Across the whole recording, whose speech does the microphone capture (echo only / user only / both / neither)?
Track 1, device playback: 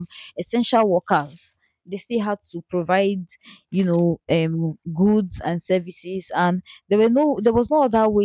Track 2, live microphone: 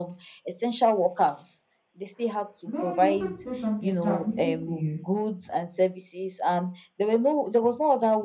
both